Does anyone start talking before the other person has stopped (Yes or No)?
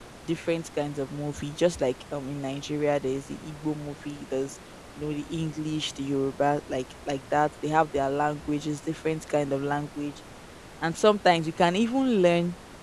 No